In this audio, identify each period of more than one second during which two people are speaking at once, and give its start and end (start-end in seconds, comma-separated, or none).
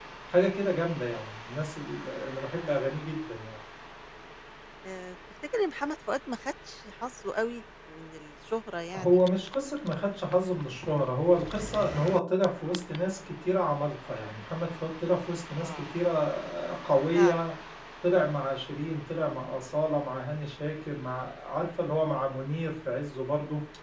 none